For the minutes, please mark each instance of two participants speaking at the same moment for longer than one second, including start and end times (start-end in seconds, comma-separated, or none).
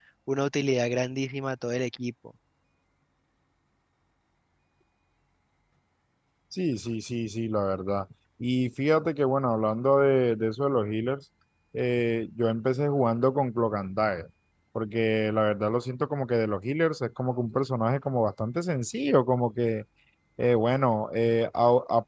none